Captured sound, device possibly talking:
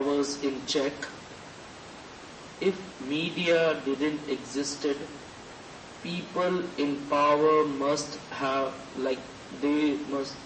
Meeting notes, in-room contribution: none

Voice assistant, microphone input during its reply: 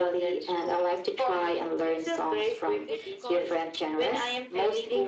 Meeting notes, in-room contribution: present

